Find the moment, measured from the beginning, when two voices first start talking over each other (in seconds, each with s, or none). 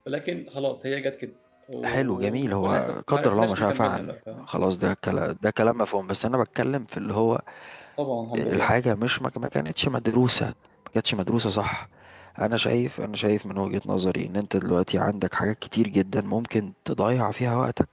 1.8 s